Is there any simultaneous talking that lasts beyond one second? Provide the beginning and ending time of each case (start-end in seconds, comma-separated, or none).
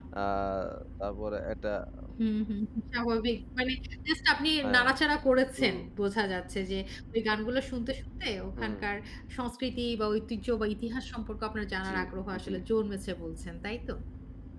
none